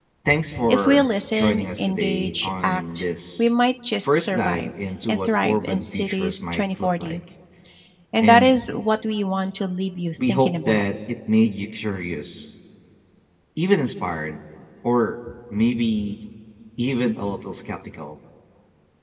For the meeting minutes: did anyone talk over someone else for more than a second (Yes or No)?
Yes